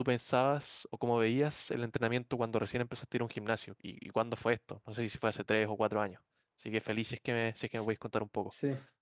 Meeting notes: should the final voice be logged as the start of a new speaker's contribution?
Yes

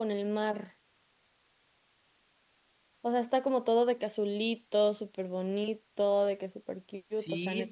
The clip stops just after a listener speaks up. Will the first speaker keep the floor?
No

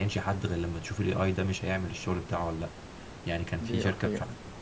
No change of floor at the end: Yes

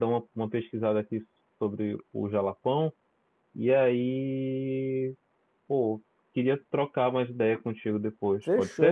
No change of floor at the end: No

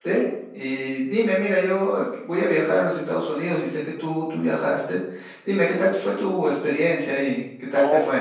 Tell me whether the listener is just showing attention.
No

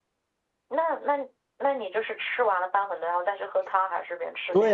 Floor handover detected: Yes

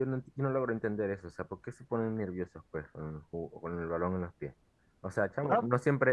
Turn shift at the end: No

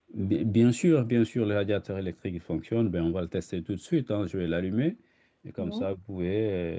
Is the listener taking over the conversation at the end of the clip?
No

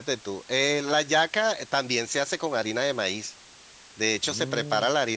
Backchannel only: Yes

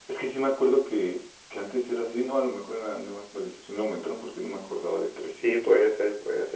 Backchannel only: No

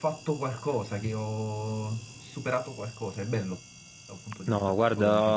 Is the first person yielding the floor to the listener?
Yes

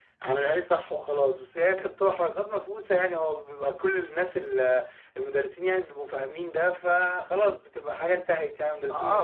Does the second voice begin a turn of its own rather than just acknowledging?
Yes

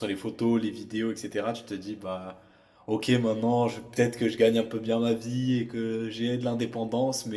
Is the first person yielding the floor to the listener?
No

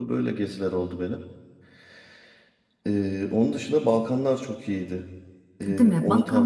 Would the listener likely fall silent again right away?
No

